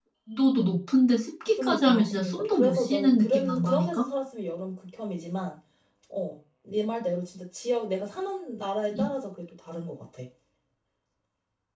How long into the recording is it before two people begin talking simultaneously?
1.6 s

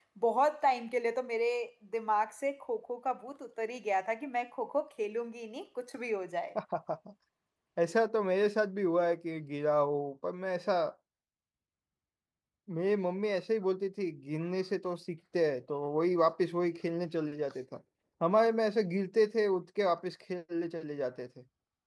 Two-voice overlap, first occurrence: none

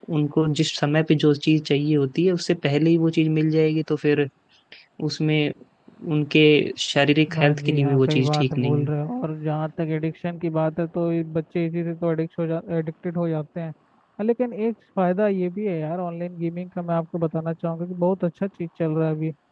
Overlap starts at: 7.3 s

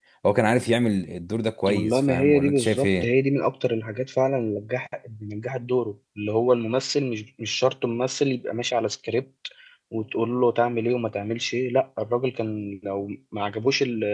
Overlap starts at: 1.7 s

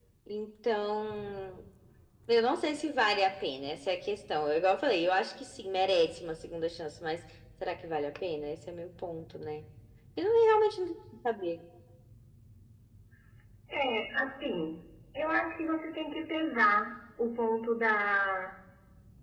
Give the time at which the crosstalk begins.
none

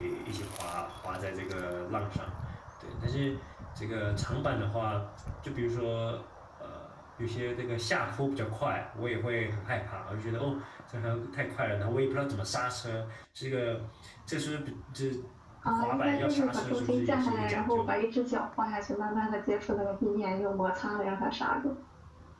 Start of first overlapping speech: 15.6 s

